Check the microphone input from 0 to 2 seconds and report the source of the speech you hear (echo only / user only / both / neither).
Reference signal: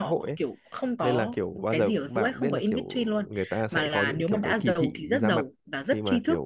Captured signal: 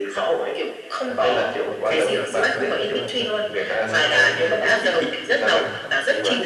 both